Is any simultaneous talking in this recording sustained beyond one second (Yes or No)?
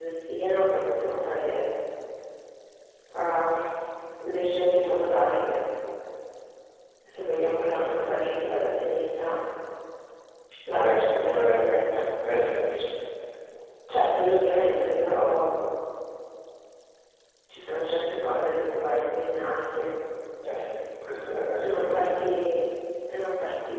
Yes